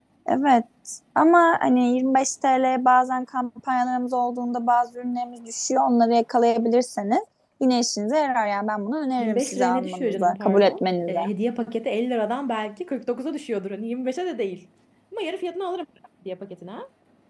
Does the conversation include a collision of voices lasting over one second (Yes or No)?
Yes